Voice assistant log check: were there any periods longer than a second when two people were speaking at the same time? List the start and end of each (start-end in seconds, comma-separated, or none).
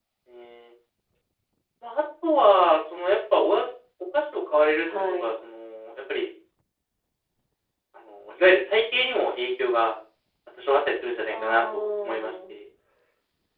11.3-12.6